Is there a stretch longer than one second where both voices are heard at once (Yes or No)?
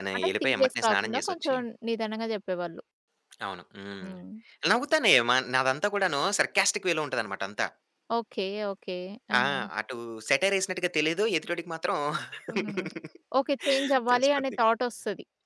Yes